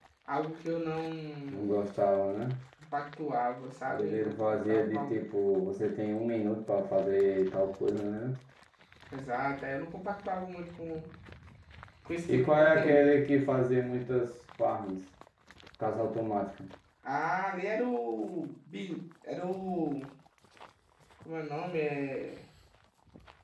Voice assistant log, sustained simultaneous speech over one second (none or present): present